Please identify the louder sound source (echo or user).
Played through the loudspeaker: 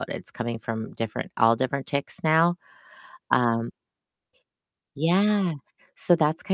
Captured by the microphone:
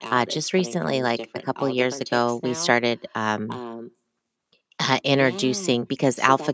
user